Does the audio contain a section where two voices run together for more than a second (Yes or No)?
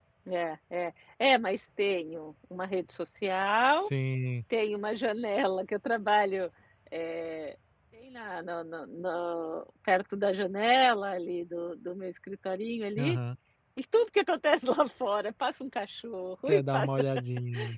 No